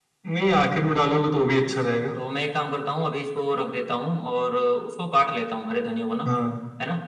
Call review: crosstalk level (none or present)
none